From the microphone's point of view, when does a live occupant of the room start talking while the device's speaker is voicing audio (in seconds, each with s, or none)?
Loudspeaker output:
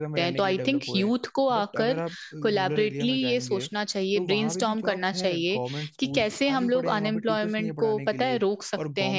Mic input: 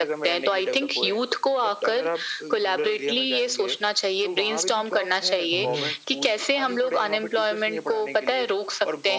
5.5 s